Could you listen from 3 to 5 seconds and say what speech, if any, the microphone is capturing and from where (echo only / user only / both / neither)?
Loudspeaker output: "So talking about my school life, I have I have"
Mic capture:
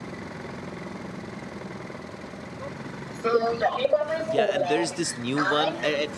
both